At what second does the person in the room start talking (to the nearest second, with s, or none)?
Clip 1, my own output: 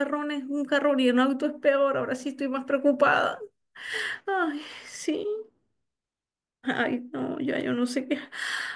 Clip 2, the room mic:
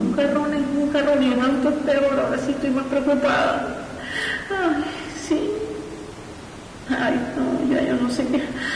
none